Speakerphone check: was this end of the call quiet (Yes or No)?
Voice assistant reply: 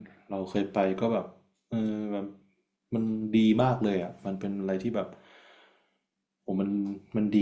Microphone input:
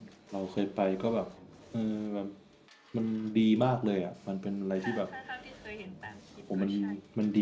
No